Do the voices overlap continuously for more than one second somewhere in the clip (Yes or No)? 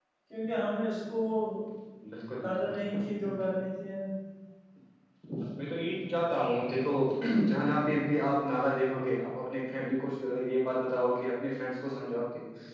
No